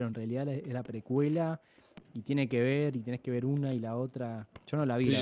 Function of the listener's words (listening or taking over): taking over